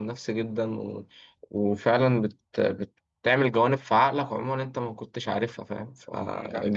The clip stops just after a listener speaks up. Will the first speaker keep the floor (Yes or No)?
Yes